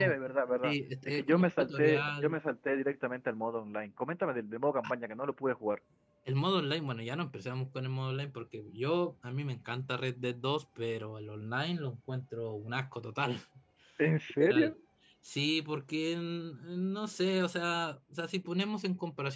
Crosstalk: present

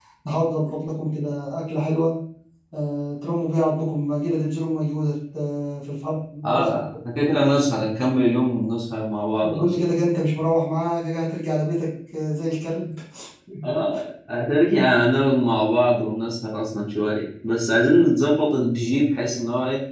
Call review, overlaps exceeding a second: none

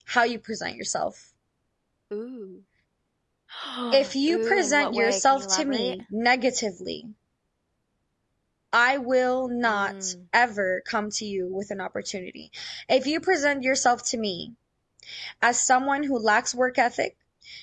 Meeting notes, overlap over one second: present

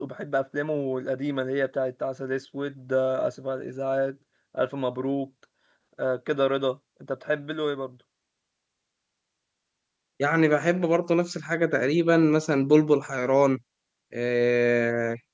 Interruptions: none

